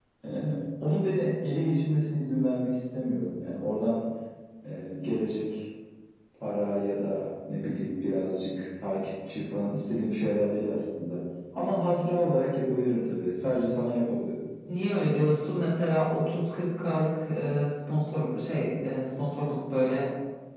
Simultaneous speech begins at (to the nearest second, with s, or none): none